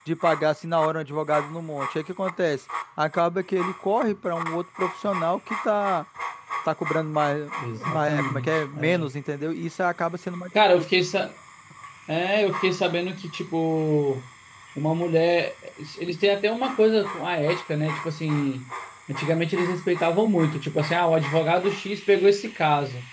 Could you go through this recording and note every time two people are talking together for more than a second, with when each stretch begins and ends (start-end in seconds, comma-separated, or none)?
7.8-9.1